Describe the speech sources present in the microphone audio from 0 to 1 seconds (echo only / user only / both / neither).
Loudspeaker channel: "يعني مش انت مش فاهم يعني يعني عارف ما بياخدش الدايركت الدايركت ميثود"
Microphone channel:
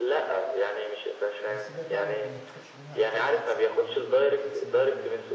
echo only